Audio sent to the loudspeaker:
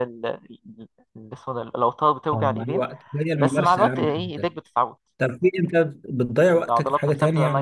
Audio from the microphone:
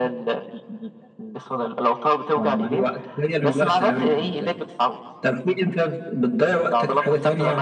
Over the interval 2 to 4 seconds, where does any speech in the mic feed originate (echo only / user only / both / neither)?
echo only